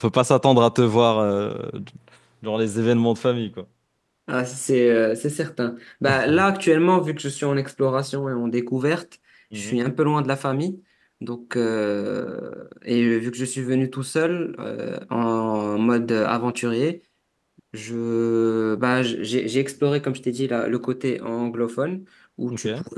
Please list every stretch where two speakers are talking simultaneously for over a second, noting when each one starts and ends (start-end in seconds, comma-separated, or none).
none